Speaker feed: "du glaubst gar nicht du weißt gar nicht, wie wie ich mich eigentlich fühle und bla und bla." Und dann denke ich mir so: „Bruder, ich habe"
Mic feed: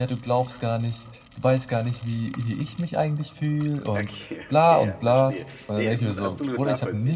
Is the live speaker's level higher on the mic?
No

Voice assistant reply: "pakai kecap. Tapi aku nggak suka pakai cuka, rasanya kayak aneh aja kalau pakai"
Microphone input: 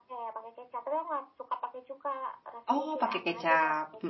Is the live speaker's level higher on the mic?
Yes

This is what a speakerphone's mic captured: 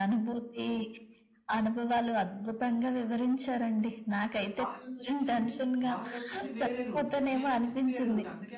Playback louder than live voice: Yes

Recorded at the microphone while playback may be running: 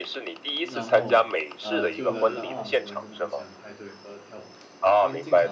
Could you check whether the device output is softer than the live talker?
No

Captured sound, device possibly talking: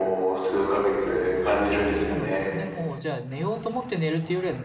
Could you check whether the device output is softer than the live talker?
No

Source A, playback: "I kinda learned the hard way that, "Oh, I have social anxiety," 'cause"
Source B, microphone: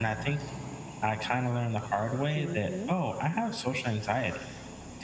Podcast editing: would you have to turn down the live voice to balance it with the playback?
No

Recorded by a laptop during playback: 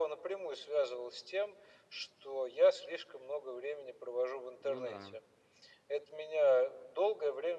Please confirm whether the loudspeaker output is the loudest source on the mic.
Yes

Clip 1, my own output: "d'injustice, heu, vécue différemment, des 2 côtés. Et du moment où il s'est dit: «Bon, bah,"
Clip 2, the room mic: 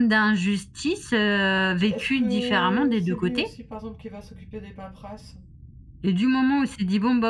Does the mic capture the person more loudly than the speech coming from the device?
No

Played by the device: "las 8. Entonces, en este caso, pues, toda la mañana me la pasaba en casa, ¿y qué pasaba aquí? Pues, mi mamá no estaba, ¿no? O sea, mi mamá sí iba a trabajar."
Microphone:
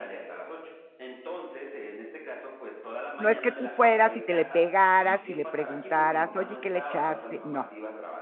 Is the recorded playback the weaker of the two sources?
Yes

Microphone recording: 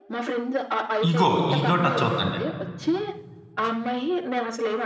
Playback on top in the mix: No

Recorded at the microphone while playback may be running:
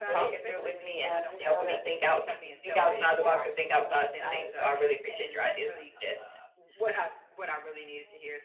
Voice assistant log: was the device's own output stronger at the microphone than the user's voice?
Yes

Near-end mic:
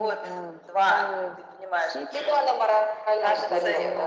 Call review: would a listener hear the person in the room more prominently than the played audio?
No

